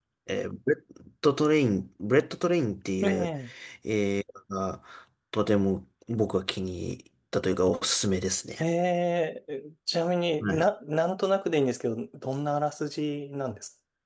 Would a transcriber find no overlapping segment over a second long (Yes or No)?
Yes